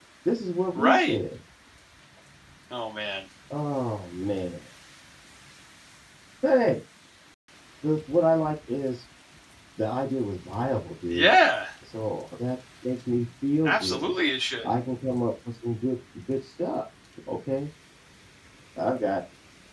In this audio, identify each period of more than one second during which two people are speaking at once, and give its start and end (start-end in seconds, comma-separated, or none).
none